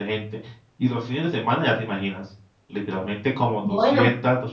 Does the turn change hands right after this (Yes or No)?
No